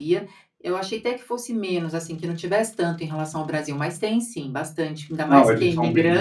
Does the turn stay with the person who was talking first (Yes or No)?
No